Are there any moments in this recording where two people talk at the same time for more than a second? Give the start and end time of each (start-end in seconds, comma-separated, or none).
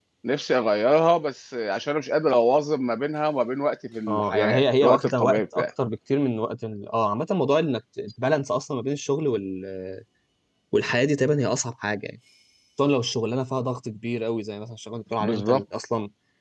4.1-5.6